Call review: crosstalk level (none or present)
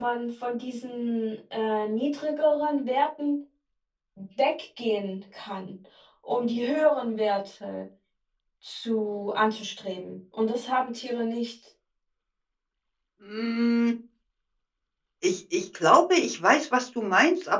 none